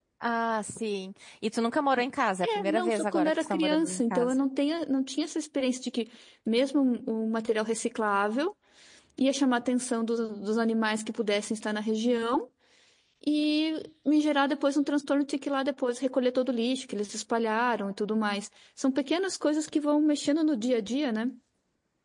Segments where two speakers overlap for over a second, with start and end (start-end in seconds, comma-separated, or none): 2.4-4.3